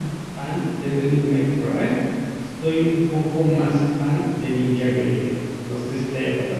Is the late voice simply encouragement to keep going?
No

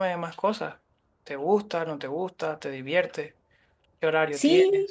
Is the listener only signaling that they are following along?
No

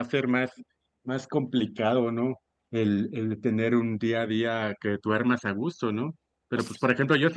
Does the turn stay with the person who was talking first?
Yes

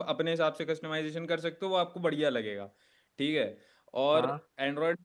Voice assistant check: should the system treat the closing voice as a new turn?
No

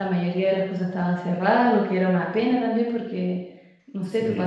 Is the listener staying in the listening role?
Yes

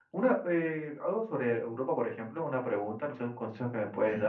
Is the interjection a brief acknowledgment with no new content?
Yes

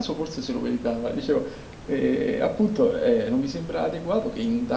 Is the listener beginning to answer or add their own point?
No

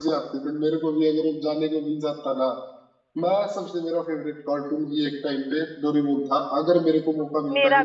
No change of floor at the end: Yes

